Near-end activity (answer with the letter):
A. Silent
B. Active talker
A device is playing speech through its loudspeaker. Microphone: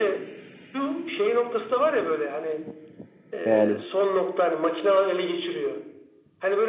B